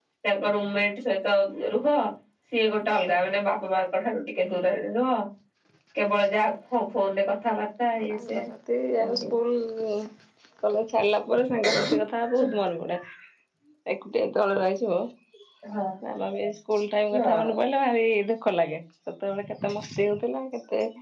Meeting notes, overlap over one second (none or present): none